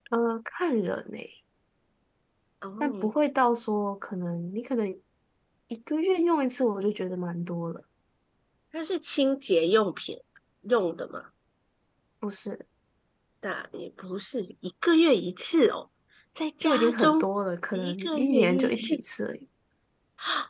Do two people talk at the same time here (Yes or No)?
Yes